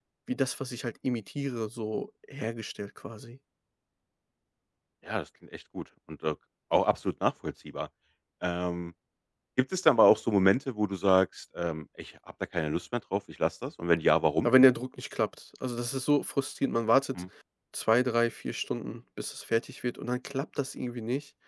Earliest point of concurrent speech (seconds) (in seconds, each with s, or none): none